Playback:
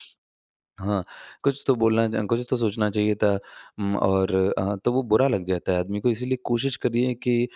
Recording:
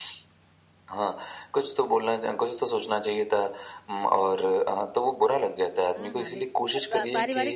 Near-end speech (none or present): present